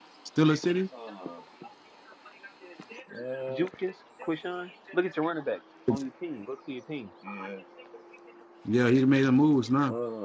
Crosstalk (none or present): none